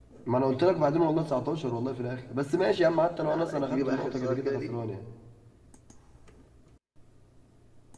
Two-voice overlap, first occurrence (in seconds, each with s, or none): 3.2 s